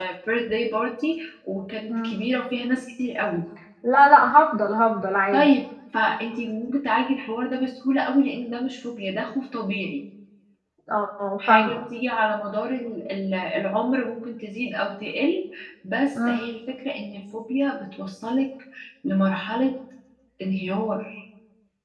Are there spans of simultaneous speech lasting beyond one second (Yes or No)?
No